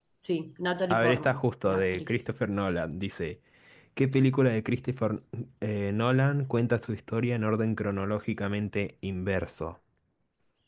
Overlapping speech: Yes, from 0.9 s

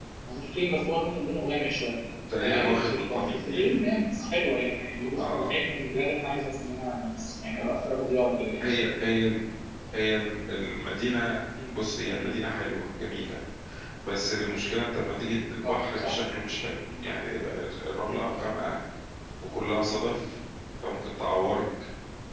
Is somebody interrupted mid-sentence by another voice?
Yes, from 2.4 s

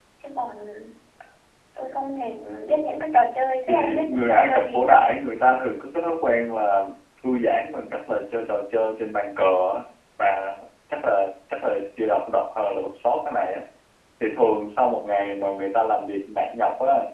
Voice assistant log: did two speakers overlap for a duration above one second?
Yes, from 3.7 s

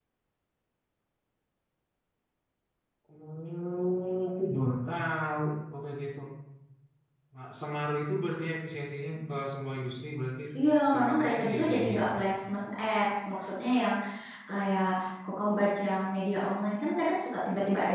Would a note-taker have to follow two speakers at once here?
Yes, from 10.9 s

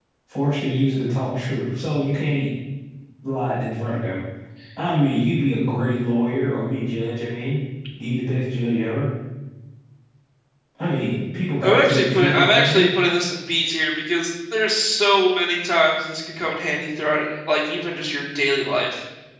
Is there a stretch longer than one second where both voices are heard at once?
Yes, from 11.6 s

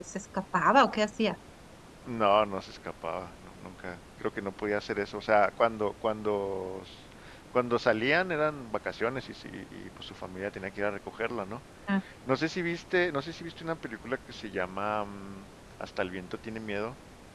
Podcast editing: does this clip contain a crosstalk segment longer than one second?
No

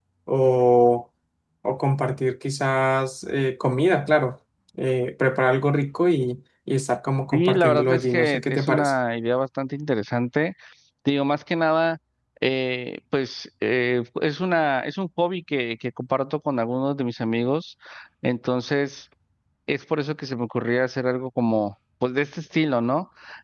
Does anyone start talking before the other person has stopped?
Yes, from 7.3 s

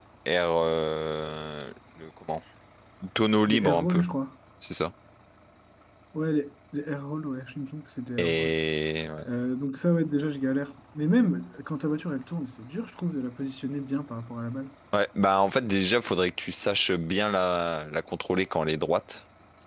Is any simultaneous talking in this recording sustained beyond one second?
No

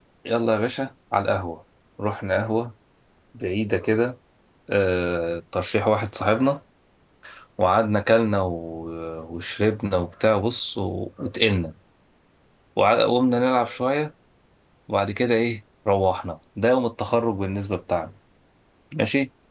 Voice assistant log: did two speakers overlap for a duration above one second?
No

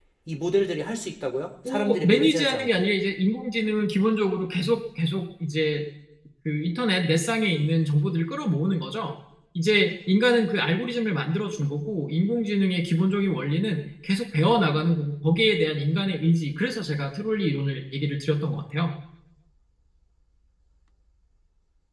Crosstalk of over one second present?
Yes, from 1.6 s

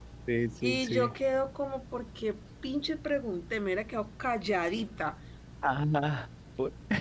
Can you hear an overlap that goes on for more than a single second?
No

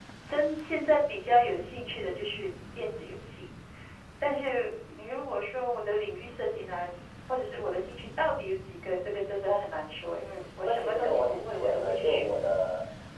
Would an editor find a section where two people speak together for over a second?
Yes, from 10.6 s

